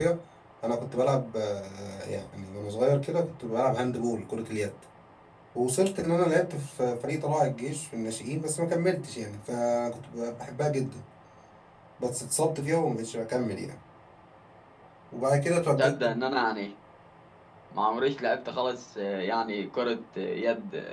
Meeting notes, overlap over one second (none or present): none